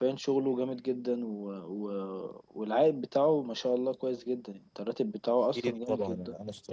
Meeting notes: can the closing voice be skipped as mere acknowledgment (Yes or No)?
No